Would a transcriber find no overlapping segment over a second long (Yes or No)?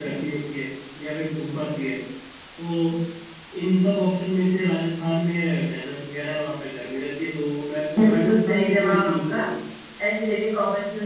No